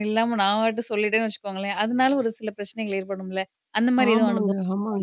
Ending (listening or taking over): taking over